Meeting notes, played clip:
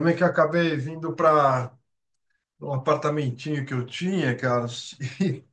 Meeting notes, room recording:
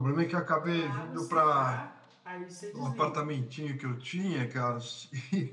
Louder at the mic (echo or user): echo